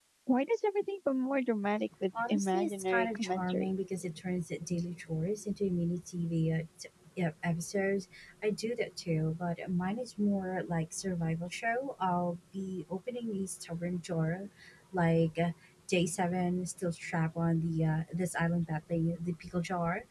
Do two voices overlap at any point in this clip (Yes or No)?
Yes